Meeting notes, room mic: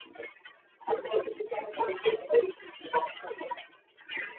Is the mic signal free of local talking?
Yes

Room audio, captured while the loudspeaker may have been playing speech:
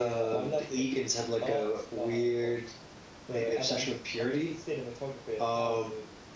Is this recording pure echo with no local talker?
Yes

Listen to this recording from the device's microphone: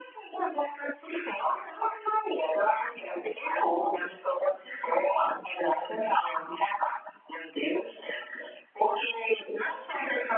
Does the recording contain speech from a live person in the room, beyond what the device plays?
No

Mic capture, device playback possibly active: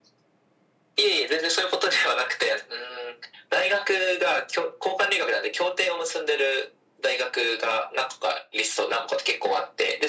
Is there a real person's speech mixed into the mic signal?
No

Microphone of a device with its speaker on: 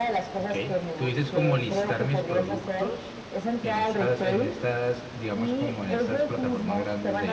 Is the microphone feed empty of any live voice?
No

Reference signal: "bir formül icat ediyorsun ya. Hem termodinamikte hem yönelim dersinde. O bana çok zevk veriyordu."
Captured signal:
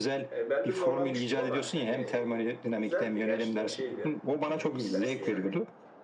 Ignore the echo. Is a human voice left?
Yes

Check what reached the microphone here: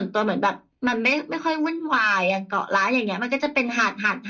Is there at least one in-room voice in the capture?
No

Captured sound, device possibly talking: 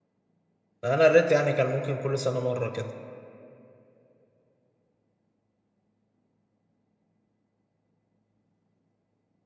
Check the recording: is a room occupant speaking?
Yes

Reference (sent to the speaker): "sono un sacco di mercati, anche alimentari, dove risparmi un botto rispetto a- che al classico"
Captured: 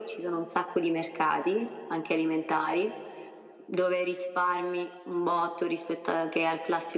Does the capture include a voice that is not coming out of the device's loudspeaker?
No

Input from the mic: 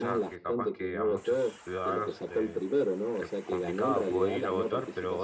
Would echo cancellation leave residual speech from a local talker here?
Yes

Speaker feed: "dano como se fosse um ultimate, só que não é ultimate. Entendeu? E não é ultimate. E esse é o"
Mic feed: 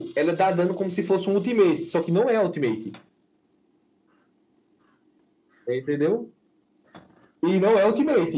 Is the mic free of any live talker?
Yes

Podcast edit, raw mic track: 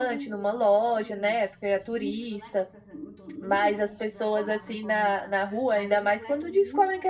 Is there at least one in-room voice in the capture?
Yes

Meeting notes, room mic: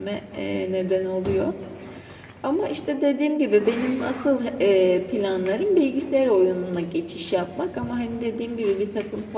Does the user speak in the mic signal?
Yes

